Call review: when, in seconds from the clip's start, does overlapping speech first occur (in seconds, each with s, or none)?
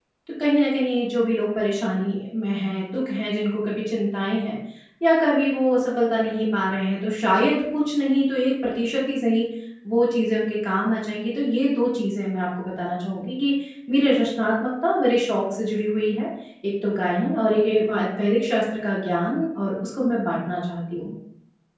none